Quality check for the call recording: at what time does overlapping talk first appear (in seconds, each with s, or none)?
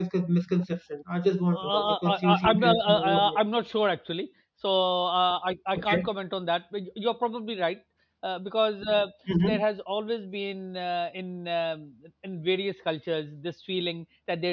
1.5 s